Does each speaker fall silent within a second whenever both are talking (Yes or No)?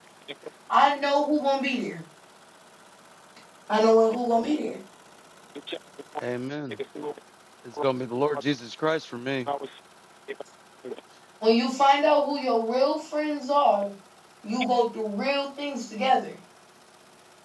Yes